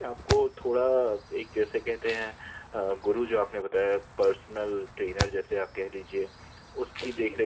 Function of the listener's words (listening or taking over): listening